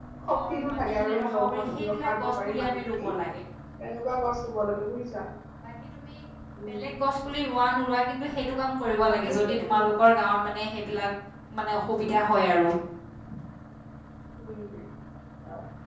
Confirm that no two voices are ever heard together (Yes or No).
No